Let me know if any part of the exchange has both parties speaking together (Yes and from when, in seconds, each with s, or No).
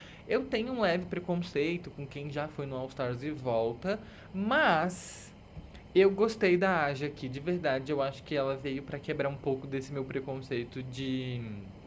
No